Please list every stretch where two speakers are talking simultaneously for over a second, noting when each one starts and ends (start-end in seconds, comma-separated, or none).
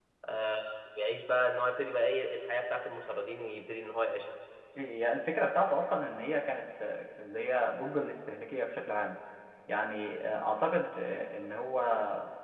none